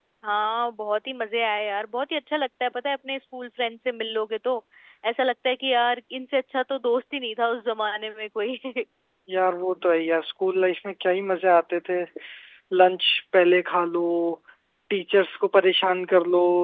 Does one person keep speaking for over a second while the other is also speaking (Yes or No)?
No